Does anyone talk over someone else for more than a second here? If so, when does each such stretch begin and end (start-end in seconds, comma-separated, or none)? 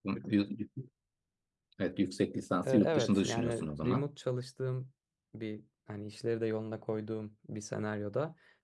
2.6-4.1